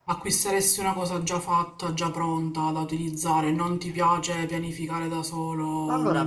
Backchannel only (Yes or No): No